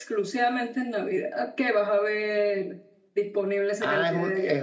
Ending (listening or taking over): taking over